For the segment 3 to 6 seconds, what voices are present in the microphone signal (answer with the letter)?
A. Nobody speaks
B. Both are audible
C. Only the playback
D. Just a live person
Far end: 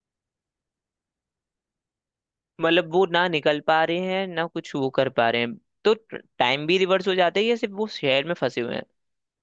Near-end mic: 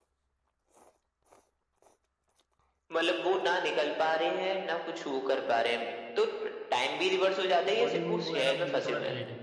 C